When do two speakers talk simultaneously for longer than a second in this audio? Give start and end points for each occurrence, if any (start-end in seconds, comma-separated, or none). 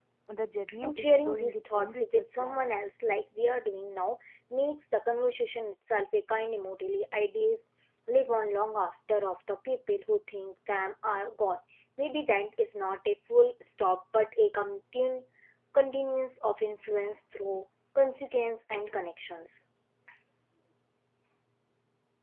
0.8-2.6